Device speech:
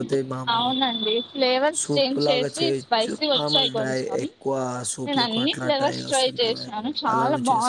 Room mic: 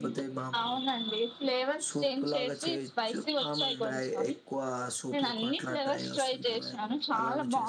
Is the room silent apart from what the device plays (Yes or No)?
Yes